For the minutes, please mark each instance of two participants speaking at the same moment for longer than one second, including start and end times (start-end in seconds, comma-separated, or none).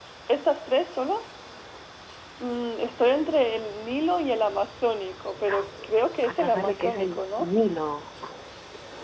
6.2-7.5